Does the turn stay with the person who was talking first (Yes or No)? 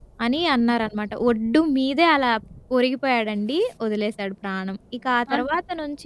Yes